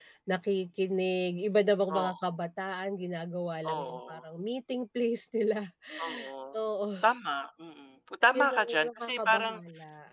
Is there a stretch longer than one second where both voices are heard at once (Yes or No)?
Yes